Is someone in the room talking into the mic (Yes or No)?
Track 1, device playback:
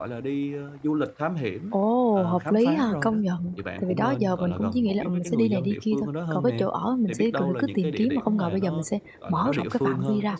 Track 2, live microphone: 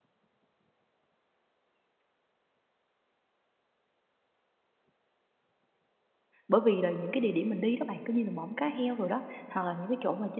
Yes